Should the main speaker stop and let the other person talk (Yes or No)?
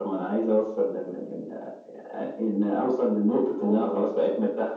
No